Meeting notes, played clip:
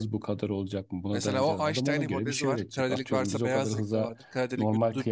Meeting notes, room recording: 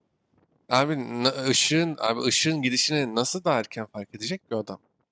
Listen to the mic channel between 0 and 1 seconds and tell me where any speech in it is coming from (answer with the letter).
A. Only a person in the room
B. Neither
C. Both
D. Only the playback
A